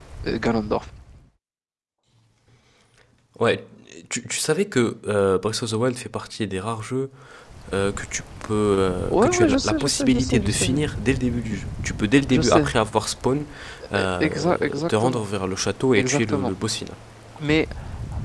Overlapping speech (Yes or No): Yes